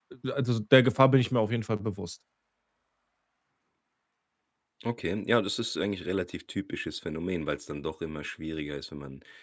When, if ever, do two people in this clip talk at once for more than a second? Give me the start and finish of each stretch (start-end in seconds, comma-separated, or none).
none